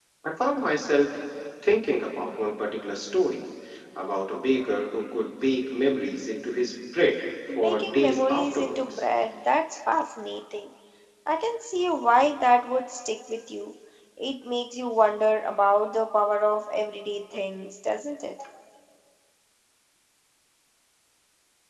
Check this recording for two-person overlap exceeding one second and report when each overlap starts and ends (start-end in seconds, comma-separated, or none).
7.6-9.0